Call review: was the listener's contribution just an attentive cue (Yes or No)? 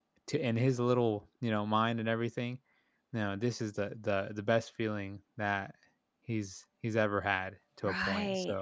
No